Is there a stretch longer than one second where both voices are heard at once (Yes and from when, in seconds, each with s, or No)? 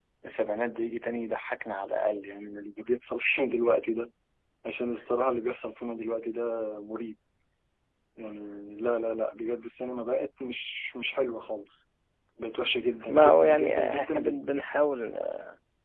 Yes, from 13.1 s